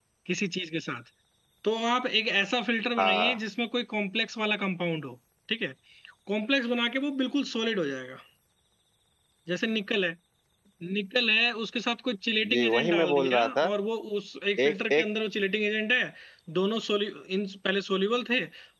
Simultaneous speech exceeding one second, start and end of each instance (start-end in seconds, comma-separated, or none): 12.5-13.7